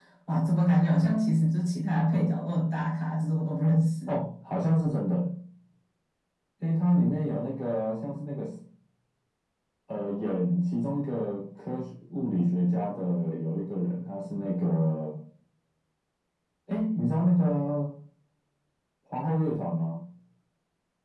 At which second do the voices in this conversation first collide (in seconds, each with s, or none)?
none